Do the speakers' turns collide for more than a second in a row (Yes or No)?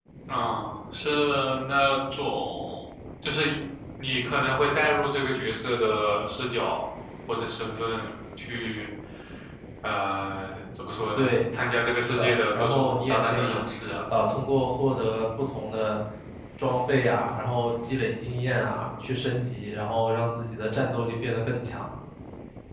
Yes